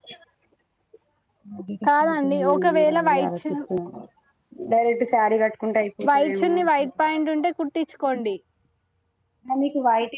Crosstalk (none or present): present